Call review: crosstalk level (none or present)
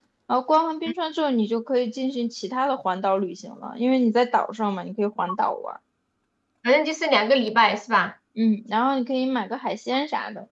none